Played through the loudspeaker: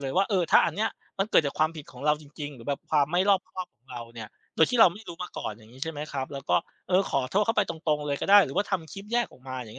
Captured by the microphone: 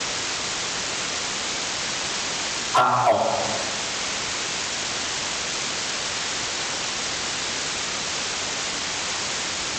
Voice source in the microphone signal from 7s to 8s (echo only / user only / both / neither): neither